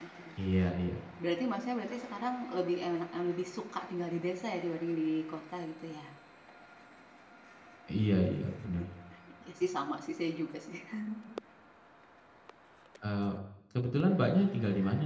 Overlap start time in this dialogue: none

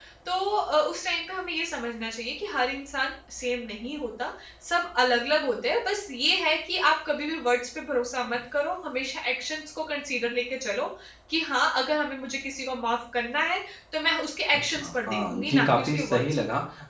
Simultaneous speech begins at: 14.7 s

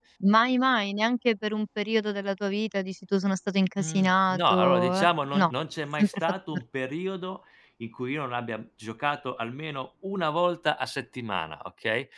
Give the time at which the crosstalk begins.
3.8 s

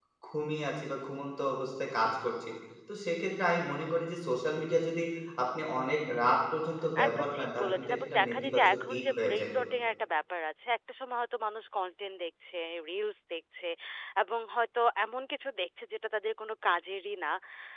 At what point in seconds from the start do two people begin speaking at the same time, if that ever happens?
7.0 s

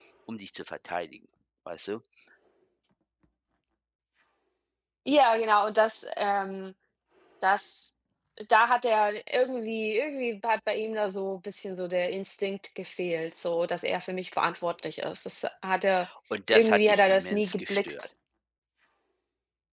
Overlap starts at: 16.5 s

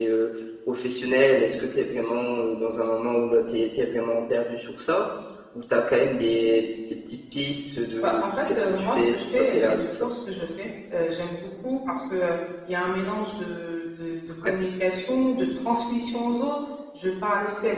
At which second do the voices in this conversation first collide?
8.0 s

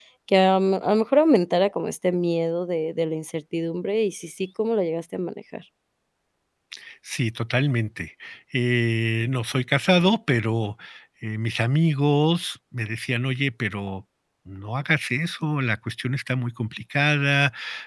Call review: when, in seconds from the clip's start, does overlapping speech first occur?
none

